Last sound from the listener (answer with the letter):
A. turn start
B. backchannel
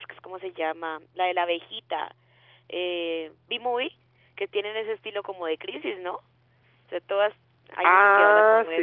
A